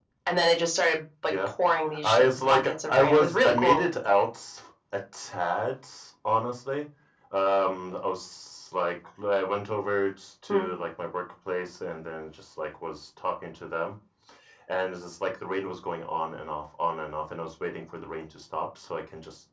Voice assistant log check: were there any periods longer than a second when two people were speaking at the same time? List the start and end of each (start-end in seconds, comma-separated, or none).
2.0-3.8